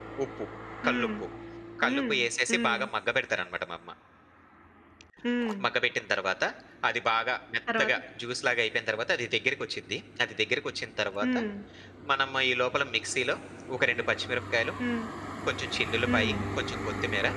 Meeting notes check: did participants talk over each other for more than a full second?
No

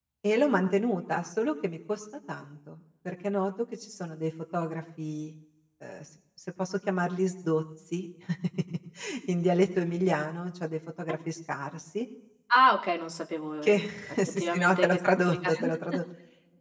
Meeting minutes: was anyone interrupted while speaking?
Yes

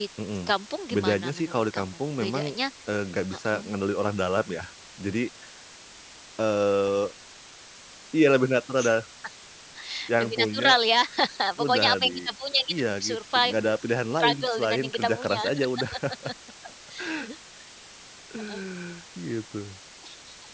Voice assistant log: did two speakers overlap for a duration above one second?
Yes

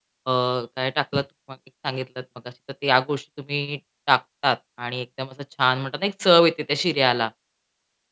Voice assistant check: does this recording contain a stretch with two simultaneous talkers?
No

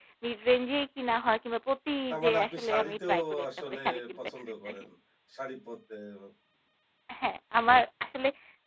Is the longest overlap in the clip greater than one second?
Yes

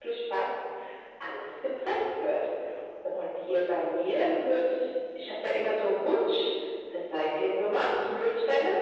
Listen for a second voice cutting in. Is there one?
No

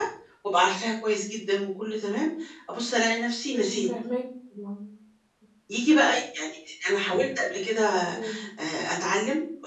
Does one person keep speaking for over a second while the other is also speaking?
No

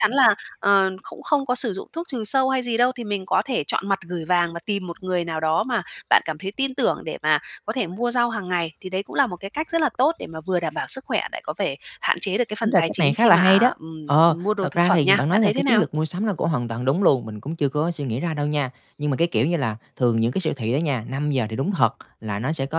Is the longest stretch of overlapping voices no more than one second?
No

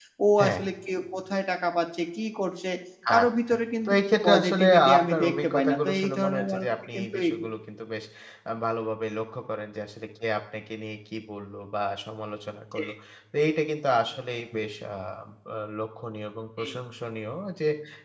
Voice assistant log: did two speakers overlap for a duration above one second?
Yes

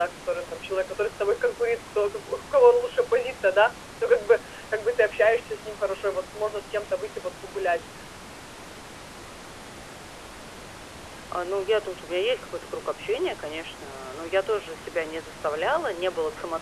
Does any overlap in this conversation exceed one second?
No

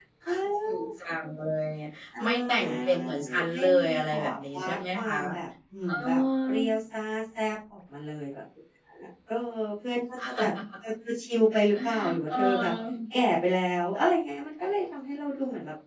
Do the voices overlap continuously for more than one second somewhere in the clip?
Yes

